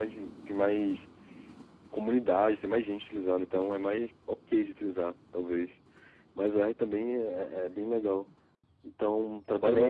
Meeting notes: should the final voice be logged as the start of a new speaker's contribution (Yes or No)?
No